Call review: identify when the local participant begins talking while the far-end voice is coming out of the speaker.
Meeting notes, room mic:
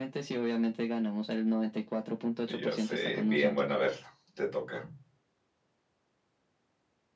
2.4 s

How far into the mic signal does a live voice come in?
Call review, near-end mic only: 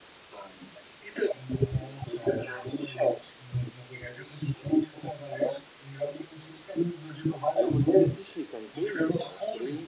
7.5 s

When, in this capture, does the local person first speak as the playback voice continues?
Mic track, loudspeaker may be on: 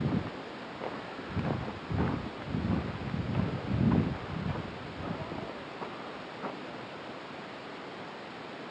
none

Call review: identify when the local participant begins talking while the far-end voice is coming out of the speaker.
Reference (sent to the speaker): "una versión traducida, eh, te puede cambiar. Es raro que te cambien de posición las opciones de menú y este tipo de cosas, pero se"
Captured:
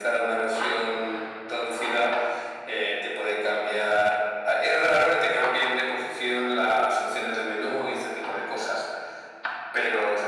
none

